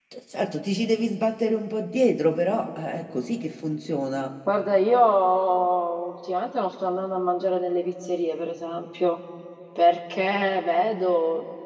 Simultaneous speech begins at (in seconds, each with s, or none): none